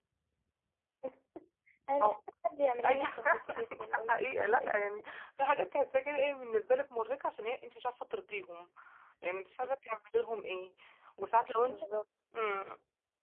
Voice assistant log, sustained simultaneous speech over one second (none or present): present